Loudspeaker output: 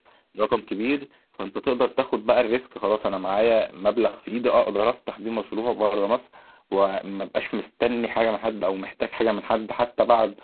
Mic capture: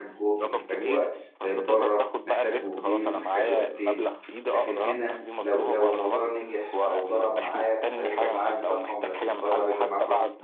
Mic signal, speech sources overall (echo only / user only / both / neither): both